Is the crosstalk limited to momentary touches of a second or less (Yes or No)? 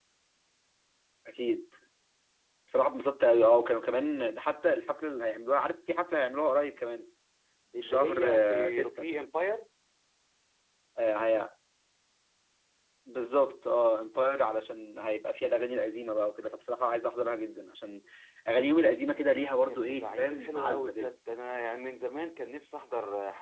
No